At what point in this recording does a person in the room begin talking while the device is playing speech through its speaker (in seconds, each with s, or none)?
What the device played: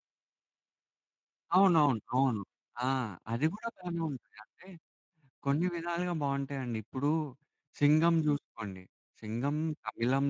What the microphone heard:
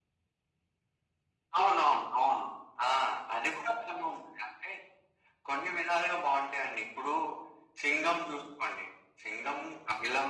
none